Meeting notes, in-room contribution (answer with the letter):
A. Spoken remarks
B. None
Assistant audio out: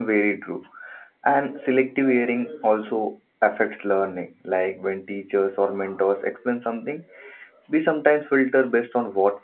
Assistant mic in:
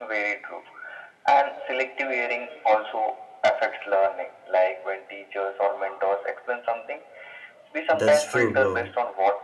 A